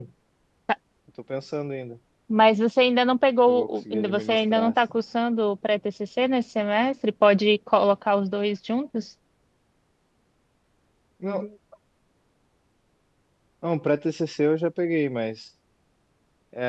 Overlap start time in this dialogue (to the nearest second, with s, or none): 3 s